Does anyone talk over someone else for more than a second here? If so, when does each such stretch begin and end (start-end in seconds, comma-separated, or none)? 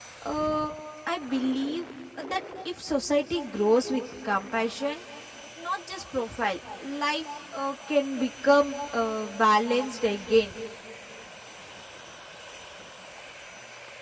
none